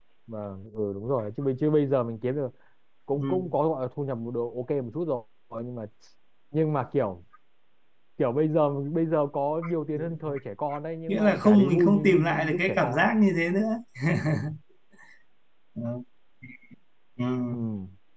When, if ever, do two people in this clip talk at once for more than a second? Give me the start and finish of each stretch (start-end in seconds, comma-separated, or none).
11.1-13.1